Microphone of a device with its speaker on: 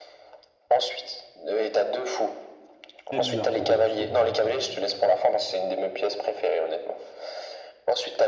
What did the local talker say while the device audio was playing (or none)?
Très bizarre, ça, quand même, je trouve, mais bon, c'est pas grave.